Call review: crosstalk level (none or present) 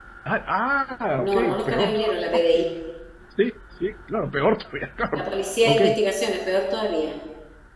present